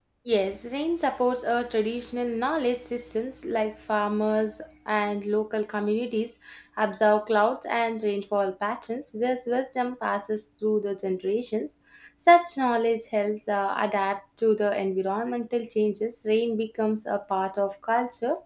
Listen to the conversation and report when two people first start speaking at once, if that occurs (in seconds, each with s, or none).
none